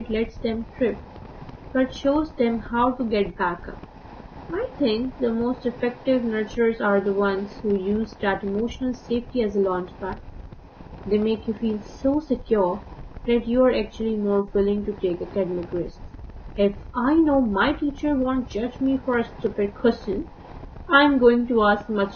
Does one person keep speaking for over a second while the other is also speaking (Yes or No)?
No